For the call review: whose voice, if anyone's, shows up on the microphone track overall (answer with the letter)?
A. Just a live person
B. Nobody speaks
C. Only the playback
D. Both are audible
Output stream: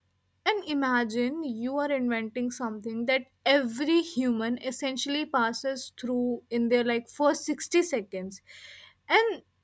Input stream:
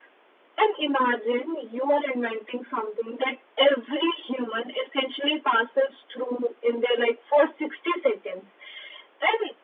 C